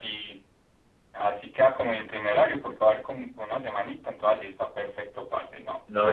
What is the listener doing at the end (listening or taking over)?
taking over